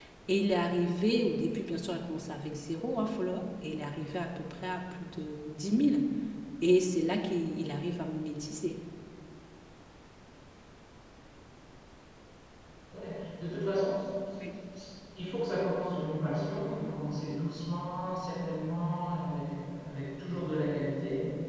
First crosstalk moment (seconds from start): none

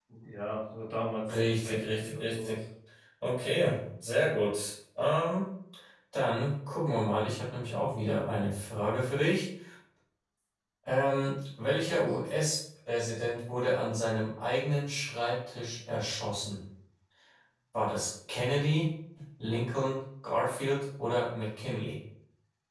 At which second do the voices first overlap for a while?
1 s

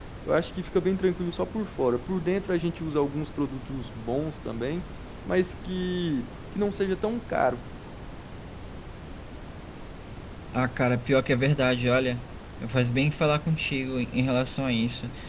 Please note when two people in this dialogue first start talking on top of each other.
none

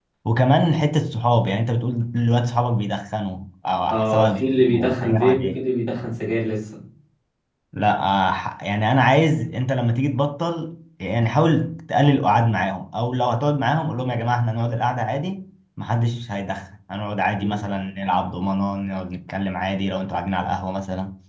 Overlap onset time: 4 s

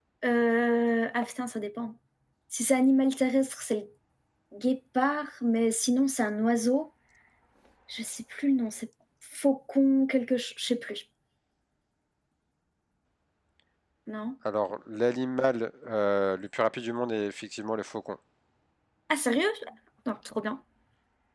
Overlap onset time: none

